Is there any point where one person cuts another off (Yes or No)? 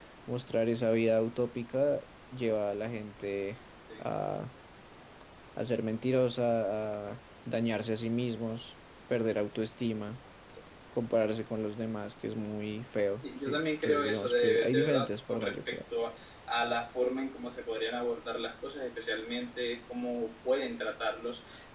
Yes